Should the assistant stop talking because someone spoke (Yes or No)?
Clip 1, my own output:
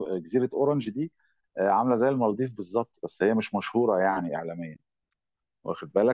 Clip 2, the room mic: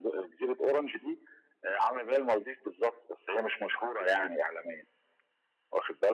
No